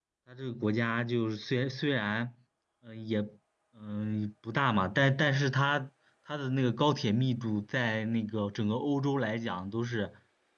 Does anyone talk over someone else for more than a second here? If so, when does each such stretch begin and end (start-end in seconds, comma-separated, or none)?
none